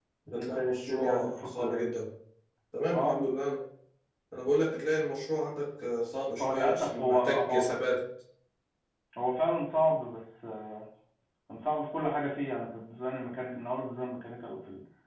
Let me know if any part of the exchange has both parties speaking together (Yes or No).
Yes